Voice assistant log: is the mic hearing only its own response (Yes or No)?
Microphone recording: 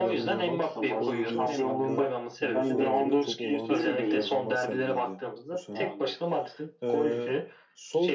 No